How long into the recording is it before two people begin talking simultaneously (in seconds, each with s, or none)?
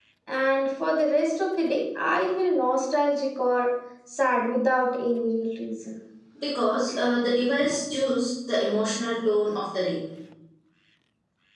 none